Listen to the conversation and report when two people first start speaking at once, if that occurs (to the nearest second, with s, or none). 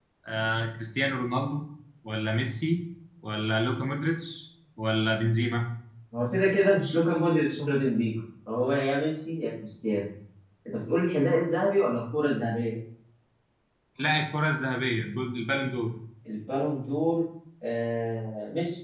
none